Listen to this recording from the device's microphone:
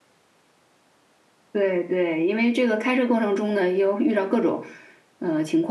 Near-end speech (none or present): present